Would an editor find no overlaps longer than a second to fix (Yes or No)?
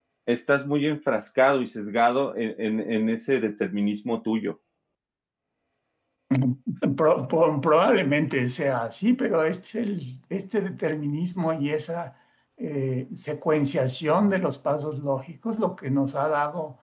Yes